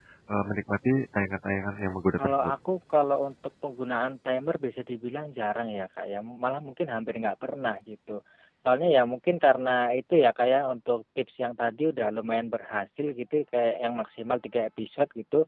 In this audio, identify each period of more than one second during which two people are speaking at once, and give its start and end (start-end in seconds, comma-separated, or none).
none